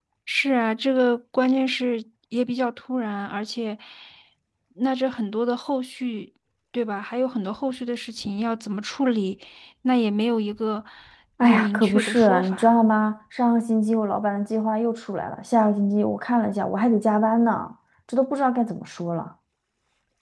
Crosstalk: present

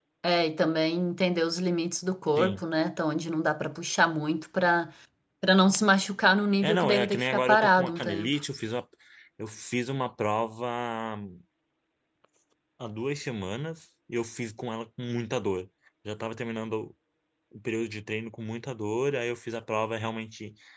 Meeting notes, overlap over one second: present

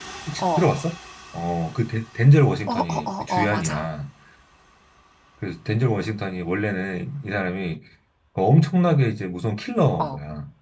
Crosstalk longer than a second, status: present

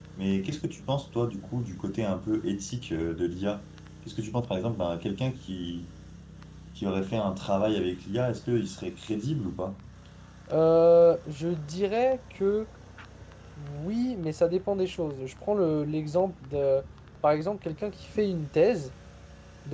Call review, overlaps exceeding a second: none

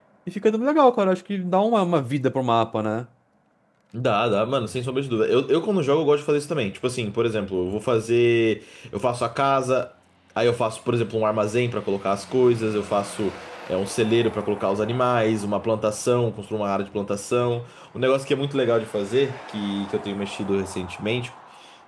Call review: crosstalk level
none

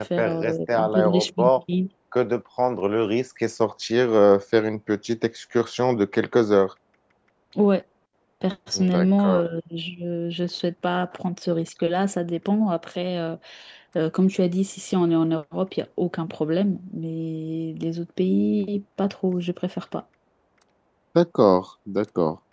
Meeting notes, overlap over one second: present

